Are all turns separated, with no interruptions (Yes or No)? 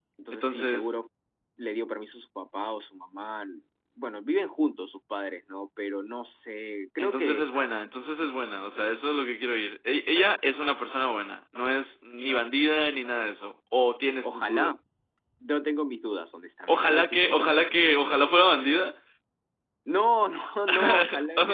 No